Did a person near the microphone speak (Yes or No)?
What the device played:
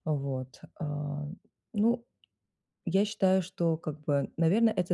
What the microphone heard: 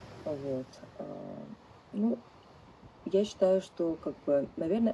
No